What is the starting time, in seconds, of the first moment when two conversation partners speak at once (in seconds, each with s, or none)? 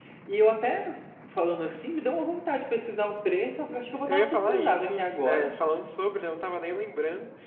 4.1 s